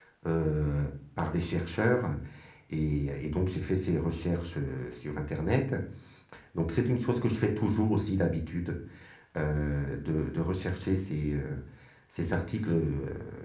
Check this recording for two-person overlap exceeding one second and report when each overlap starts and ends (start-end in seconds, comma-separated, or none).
none